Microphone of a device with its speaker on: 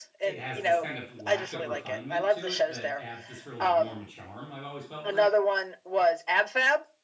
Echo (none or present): present